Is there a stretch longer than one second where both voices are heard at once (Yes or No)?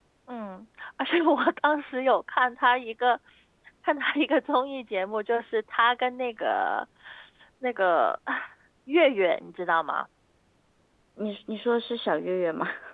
No